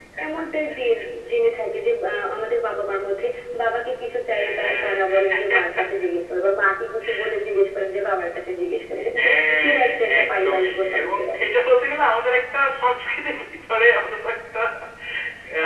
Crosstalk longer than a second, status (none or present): present